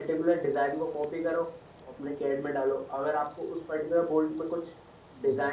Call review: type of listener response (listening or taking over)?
listening